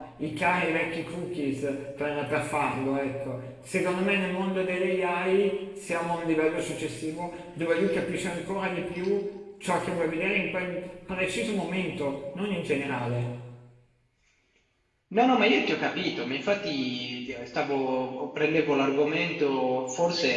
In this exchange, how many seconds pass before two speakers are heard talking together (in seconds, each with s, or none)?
none